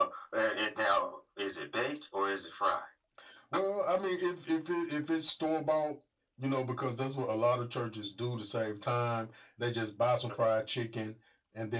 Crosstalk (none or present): none